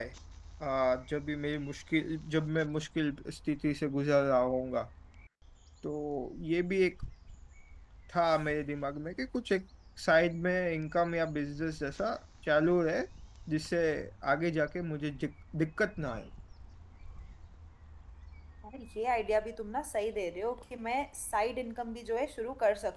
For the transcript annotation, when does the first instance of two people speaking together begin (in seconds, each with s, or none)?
none